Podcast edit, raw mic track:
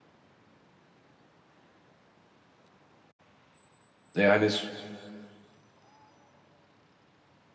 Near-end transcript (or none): E, Yani